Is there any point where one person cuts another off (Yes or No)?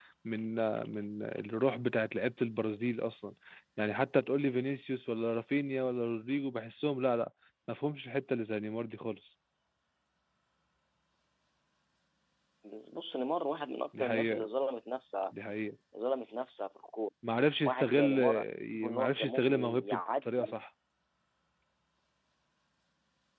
Yes